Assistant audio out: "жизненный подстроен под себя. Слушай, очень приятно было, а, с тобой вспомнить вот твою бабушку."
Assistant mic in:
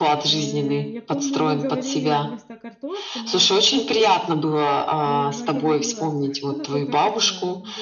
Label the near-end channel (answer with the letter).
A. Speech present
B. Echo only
A